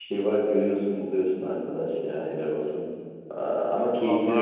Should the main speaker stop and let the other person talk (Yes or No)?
No